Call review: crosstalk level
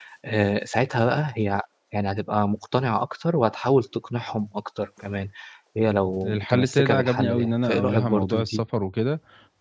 present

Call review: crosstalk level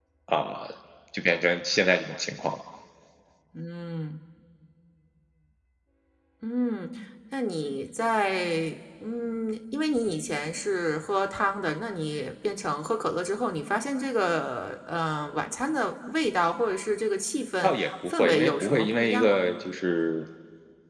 present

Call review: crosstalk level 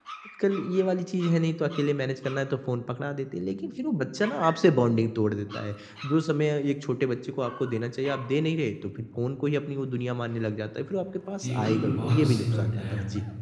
present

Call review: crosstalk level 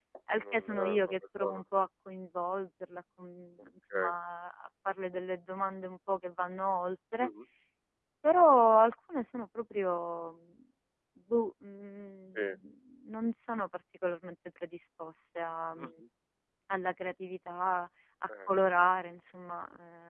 present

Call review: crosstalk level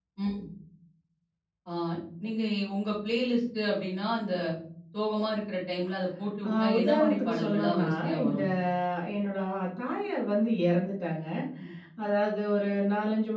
present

